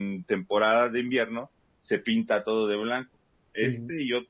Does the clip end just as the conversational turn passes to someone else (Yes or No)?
No